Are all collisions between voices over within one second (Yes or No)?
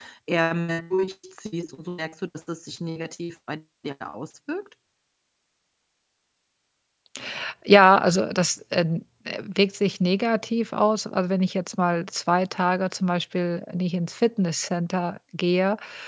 Yes